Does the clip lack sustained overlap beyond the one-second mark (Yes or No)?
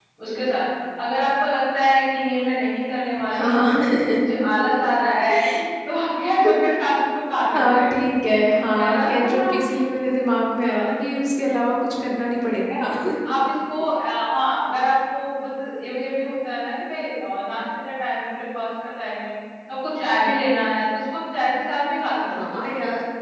Yes